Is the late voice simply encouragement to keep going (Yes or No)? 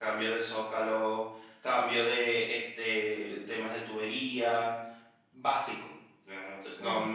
Yes